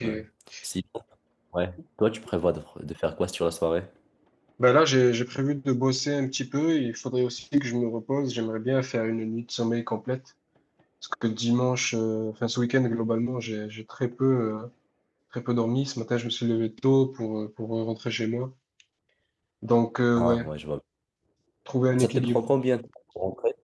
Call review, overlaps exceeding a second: none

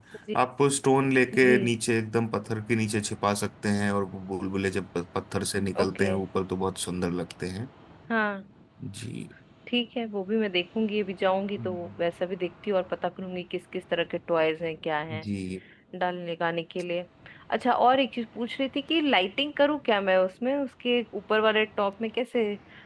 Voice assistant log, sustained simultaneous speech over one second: none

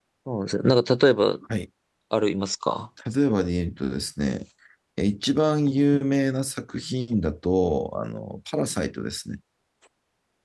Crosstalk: none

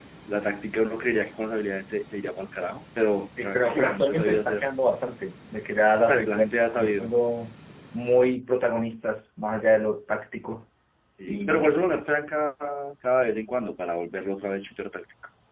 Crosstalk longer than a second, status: present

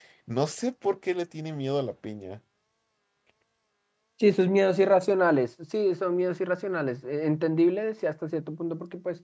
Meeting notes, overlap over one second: none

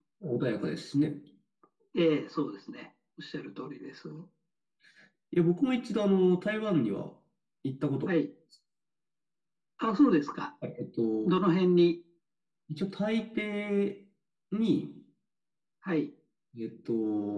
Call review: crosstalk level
none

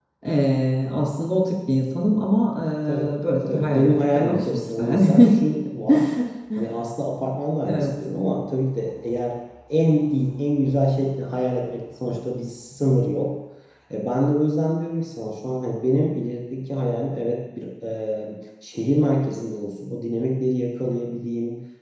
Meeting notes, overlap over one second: present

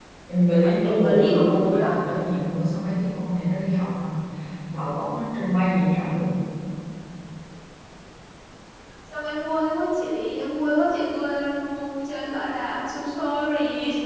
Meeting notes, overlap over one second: present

